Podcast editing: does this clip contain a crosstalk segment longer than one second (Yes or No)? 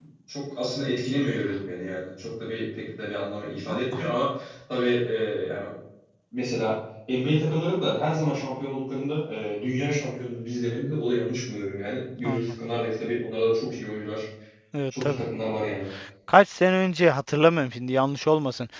No